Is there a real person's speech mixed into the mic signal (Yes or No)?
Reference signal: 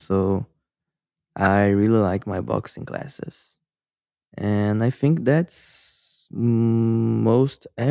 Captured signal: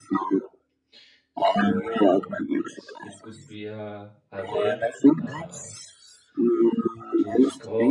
Yes